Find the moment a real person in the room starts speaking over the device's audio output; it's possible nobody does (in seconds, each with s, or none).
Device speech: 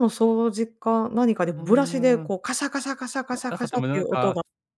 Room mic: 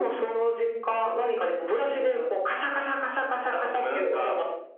none